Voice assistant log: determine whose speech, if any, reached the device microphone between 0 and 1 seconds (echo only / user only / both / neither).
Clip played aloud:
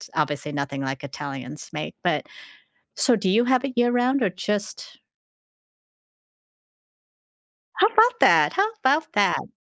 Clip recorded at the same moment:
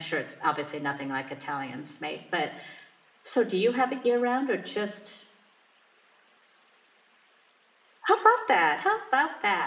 echo only